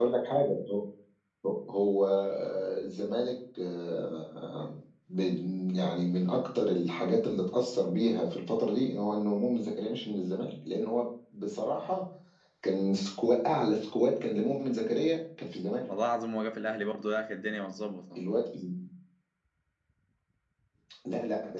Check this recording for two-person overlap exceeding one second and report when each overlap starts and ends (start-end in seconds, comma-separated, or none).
none